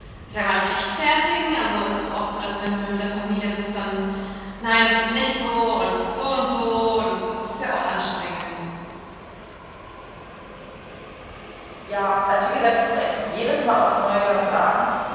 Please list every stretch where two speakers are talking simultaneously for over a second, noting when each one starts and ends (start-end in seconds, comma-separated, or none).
none